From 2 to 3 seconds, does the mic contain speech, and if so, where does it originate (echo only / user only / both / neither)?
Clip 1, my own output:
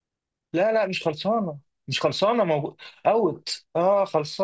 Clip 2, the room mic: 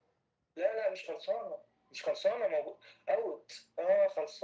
echo only